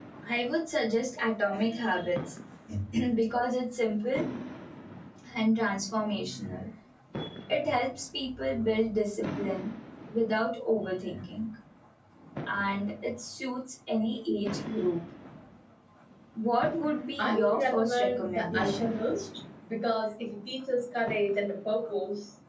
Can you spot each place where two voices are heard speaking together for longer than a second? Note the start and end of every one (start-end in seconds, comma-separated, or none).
17.2-18.9